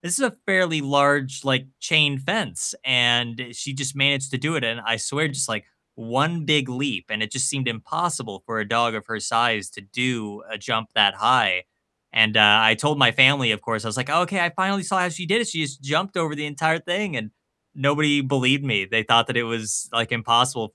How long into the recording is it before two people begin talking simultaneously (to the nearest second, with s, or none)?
none